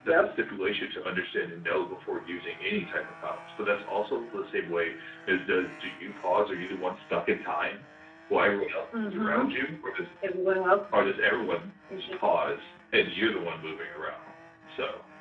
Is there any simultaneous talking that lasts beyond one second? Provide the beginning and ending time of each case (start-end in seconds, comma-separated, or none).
none